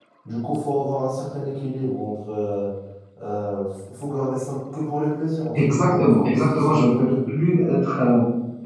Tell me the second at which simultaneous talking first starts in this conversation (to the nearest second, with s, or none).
6 s